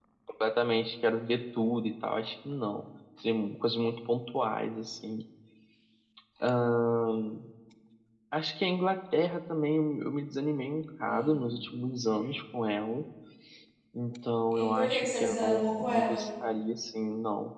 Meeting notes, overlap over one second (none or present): present